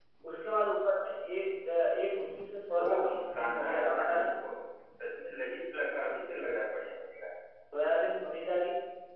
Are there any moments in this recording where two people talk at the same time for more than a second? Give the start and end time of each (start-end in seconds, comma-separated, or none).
2.9-4.3